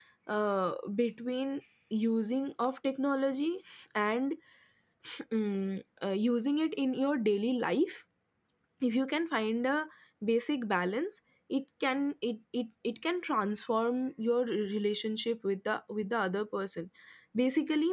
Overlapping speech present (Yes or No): No